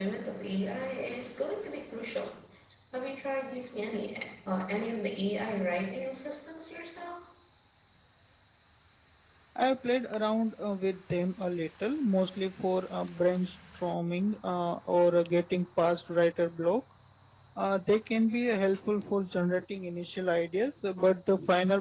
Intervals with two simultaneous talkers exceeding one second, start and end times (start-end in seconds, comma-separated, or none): none